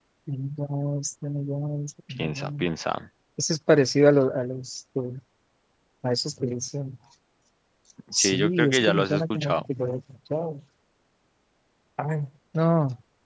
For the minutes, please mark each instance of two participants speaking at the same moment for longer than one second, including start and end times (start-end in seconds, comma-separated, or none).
8.2-9.6